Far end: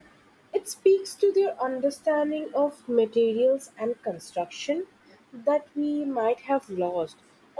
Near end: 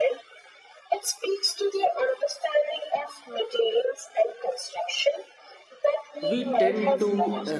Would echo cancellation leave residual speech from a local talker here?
Yes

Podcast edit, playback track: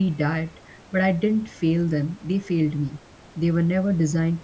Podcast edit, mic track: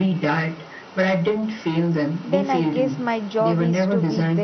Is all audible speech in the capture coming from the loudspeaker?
No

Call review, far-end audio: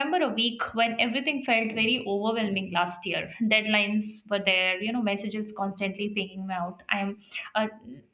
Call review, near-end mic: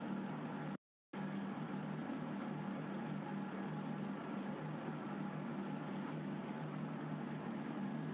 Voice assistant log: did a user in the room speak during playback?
No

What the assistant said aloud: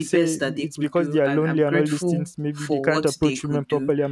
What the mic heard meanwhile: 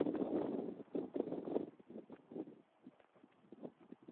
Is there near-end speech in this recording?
No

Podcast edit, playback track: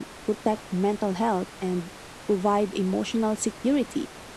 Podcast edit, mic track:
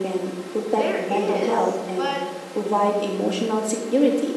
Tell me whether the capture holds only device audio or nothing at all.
No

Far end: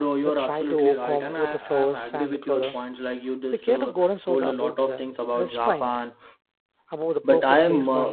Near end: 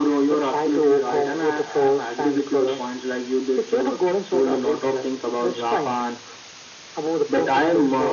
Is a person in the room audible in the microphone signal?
No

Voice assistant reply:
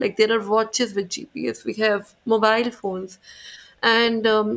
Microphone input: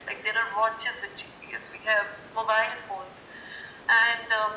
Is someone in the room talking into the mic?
No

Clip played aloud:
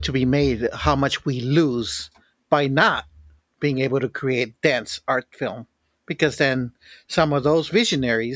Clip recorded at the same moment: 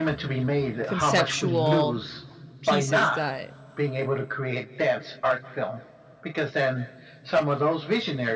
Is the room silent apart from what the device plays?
No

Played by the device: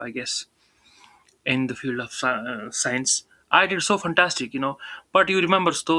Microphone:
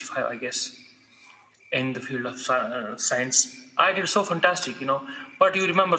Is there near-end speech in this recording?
No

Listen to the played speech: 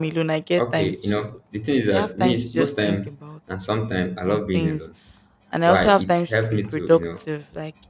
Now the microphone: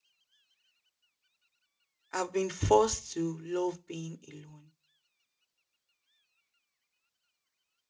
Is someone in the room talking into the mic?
Yes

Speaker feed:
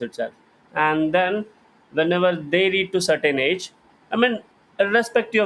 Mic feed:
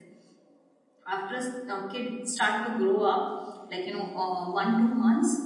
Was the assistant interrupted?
Yes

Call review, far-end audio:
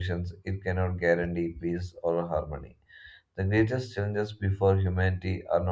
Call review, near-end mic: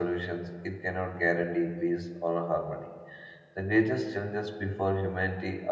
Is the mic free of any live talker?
Yes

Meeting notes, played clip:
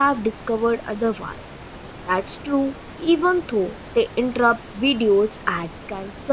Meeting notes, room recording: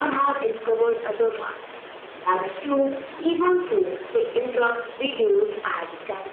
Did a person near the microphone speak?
No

